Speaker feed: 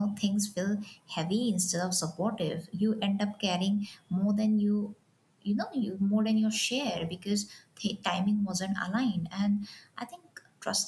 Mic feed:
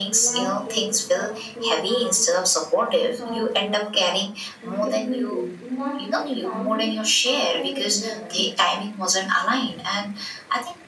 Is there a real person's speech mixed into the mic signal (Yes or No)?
Yes